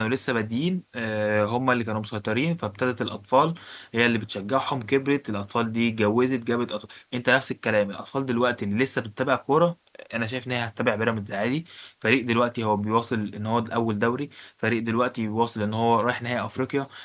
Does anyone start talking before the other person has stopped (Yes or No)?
No